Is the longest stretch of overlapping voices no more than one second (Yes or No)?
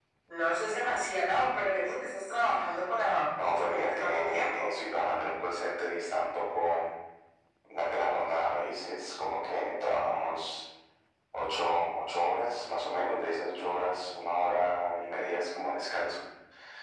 No